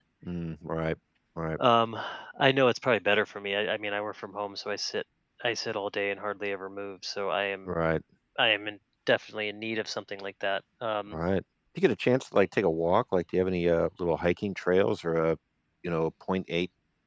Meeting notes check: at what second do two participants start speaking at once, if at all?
none

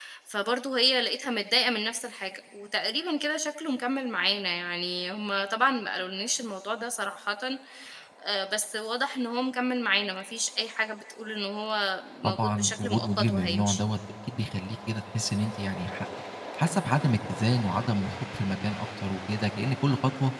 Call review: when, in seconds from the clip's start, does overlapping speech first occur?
12 s

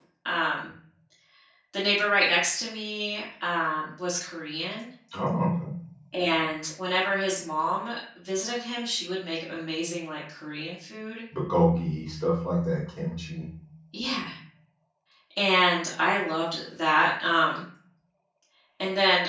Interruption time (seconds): none

